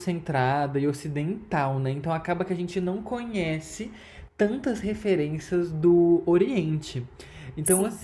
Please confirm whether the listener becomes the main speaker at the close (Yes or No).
No